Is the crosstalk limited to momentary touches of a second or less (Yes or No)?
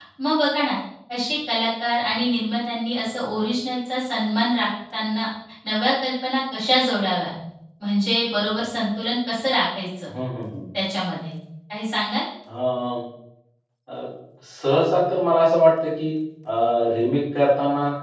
Yes